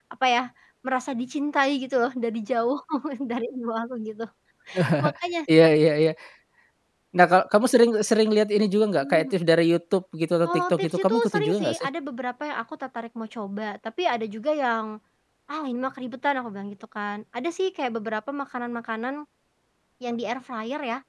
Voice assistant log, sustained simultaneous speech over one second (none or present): present